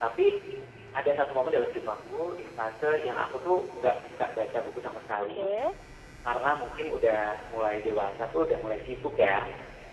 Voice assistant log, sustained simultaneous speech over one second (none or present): none